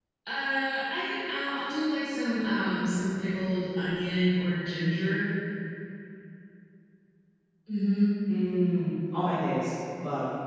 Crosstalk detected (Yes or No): No